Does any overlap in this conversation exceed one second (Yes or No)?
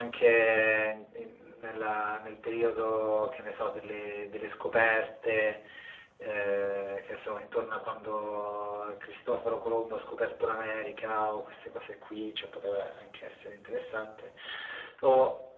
No